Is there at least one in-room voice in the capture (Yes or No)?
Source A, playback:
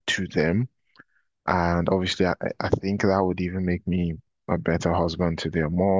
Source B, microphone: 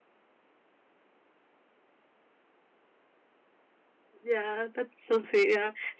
Yes